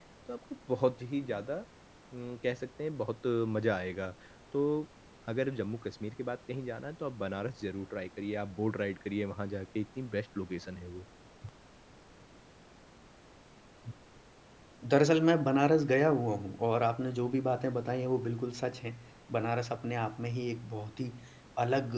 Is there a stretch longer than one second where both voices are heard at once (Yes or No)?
No